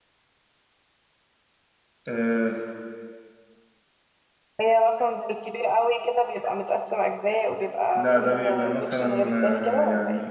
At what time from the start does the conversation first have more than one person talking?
8 s

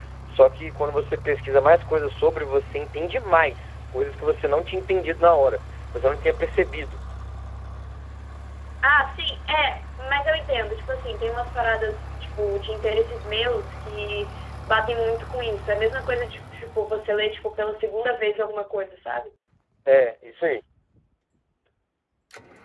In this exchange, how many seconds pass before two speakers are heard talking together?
none

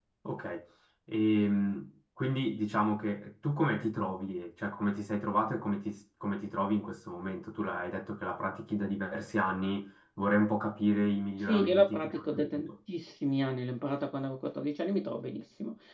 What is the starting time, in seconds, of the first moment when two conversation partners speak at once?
11 s

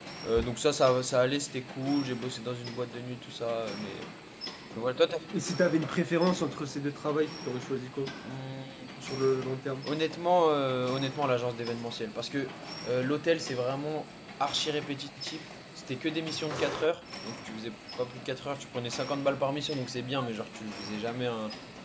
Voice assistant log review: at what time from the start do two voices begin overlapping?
none

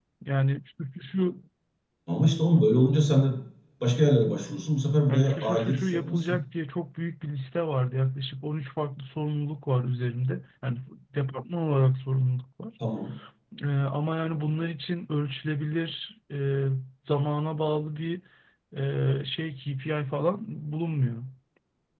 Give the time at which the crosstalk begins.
5 s

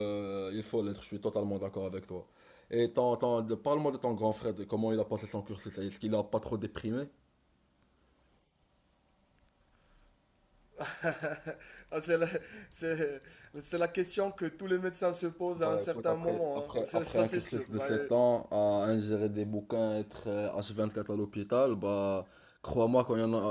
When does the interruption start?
16 s

